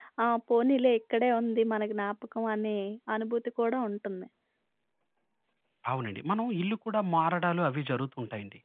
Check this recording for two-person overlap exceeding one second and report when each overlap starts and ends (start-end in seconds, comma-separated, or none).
none